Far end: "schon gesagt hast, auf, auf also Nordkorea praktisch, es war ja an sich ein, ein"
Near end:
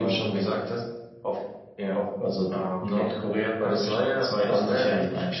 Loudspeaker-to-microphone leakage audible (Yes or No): Yes